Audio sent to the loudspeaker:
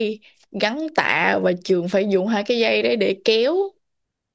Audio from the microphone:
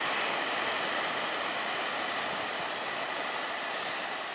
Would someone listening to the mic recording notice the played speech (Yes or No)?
No